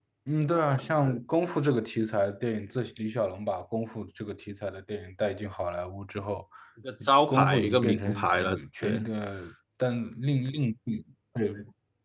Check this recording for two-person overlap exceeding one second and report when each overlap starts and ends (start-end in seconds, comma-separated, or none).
7.3-9.0